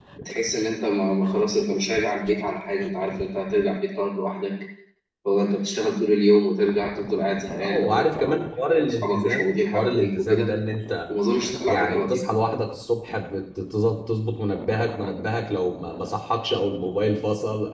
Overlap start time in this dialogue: 7.6 s

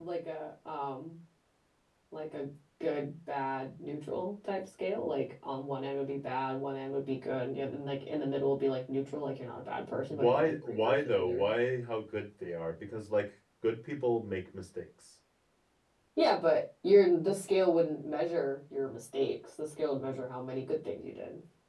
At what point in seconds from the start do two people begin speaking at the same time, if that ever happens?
10.1 s

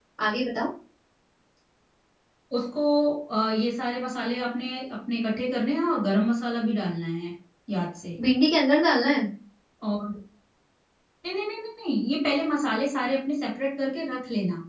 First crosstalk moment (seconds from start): none

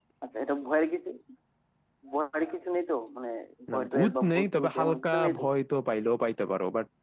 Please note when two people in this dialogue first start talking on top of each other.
3.7 s

